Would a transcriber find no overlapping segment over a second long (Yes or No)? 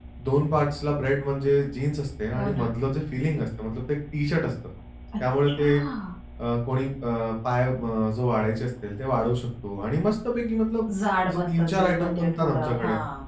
No